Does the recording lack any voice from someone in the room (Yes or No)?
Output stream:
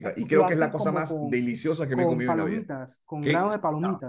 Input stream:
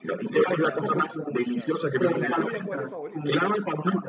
No